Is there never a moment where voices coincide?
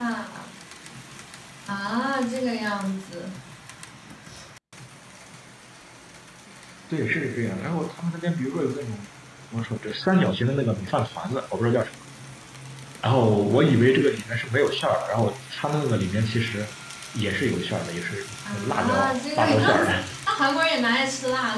No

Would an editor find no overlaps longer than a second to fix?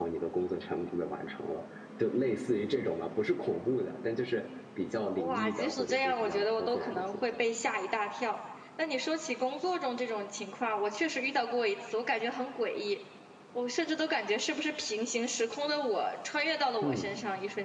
No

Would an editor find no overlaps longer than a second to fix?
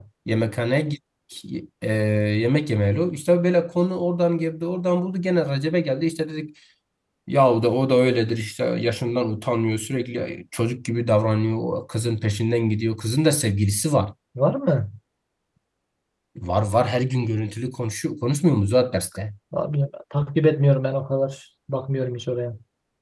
Yes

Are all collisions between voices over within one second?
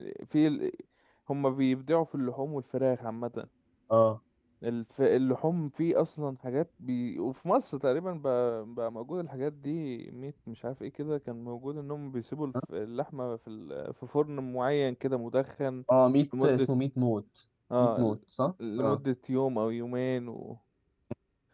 Yes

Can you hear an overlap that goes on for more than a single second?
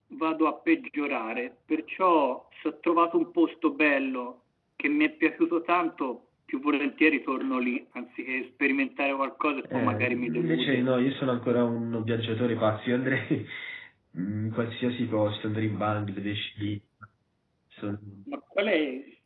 Yes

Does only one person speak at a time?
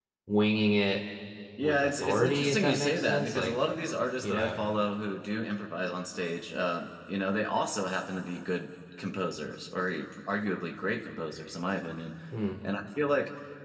No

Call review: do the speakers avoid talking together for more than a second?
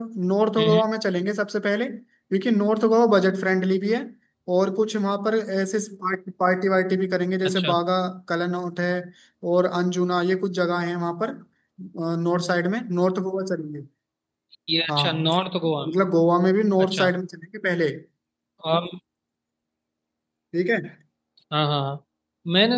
Yes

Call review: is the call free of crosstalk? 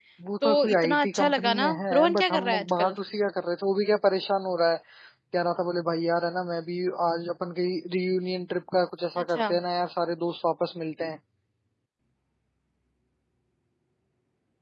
No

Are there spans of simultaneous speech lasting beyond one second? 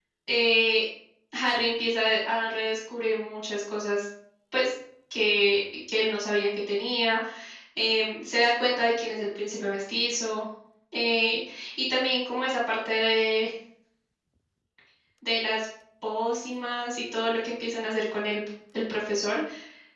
No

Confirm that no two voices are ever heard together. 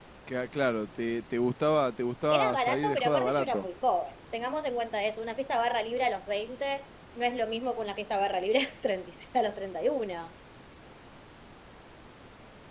No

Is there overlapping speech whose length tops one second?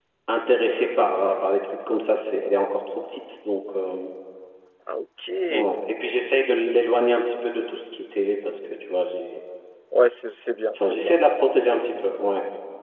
No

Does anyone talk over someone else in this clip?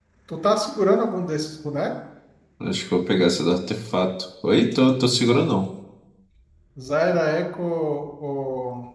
No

